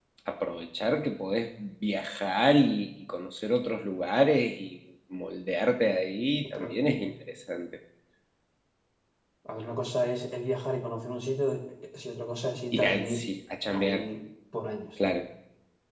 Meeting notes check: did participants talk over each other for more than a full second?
No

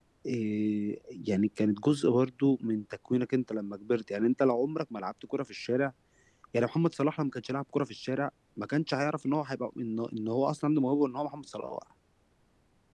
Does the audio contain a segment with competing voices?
No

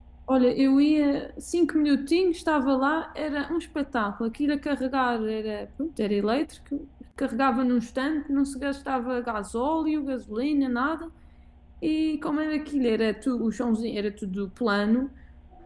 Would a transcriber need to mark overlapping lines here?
No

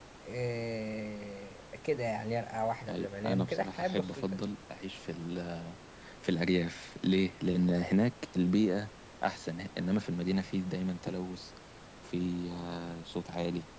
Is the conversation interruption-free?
No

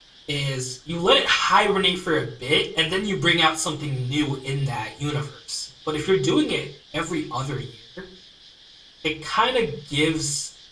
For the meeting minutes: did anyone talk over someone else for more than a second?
No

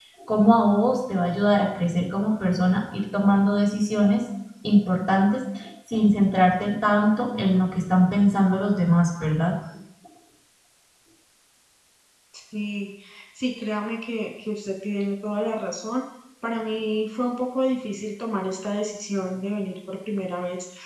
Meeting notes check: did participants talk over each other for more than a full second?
No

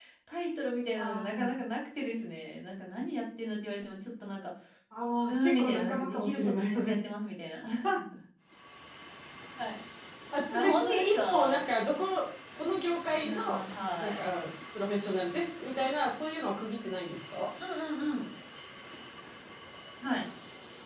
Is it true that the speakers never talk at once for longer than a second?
No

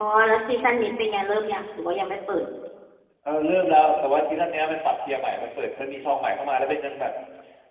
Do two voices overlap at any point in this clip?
No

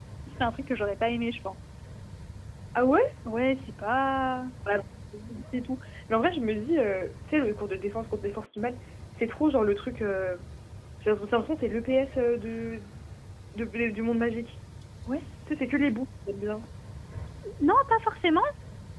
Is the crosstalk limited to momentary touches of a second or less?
Yes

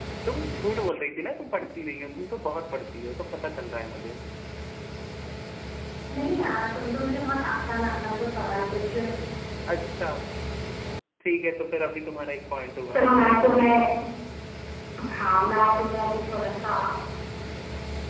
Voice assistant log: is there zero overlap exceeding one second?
Yes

